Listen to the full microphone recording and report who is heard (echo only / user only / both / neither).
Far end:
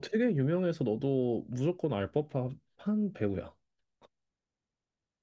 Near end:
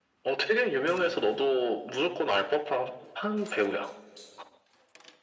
echo only